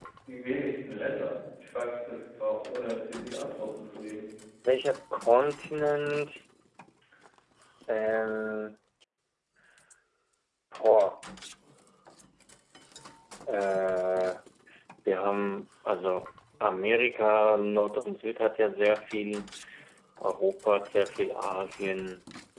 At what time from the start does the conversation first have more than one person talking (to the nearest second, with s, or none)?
none